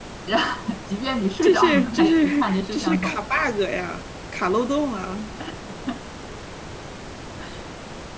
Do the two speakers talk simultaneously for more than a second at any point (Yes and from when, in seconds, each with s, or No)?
Yes, from 1.4 s